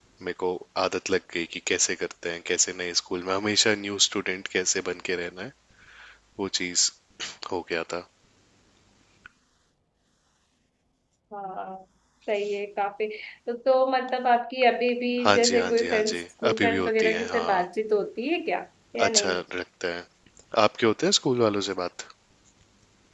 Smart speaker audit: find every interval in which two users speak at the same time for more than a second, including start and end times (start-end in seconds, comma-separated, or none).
15.2-17.6